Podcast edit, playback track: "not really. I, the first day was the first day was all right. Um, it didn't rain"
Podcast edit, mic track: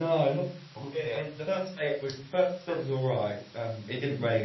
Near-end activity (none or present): none